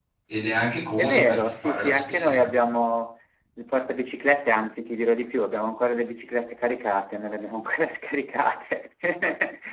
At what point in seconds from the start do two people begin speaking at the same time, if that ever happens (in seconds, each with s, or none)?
1.0 s